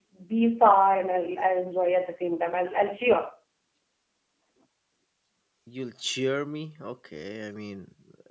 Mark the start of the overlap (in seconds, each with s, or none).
none